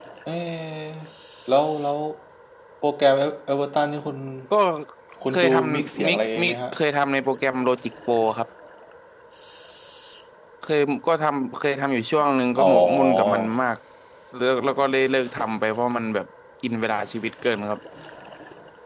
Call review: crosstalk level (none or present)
present